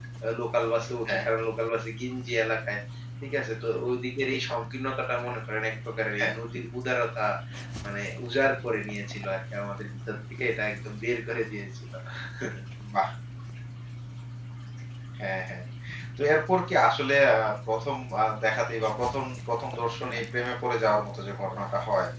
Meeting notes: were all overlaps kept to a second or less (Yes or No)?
Yes